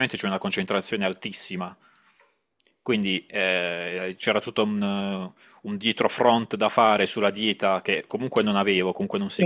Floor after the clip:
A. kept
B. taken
A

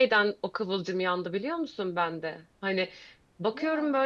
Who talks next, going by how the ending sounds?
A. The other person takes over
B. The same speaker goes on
B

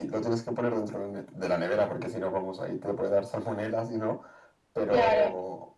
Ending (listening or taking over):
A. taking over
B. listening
B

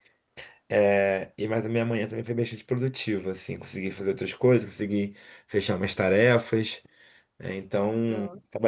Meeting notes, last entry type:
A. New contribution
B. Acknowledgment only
B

